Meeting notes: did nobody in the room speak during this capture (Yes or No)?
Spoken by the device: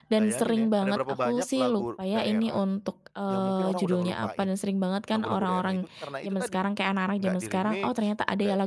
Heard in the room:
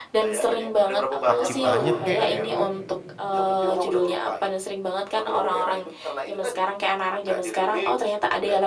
No